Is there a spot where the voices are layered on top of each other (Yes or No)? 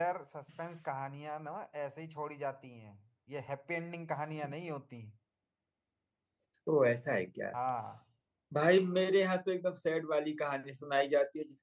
No